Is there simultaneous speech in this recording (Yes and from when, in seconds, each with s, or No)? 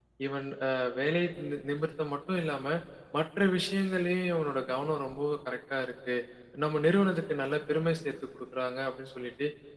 No